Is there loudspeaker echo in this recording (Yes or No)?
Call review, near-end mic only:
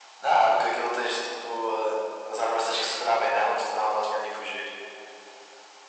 Yes